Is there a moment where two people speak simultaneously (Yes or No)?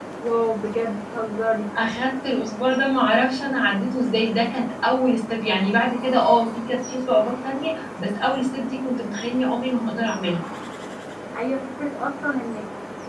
No